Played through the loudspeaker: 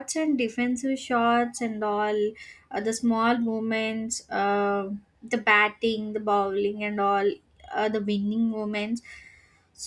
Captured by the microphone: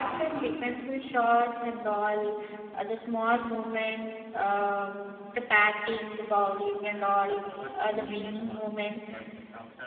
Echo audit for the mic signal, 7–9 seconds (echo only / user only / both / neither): both